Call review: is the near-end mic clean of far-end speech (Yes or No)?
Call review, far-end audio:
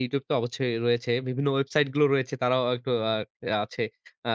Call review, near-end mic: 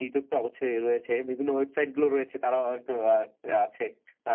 No